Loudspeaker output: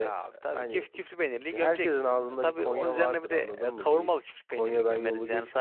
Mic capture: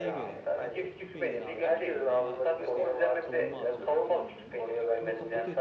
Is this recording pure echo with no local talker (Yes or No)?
No